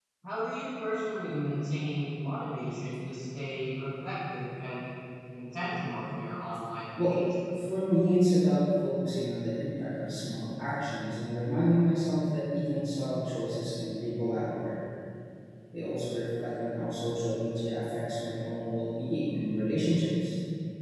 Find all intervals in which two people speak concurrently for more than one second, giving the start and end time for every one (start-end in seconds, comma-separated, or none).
none